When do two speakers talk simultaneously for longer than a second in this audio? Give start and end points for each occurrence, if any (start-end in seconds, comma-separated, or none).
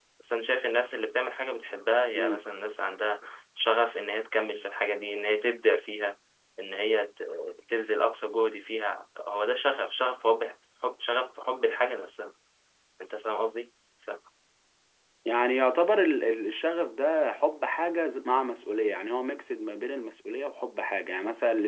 none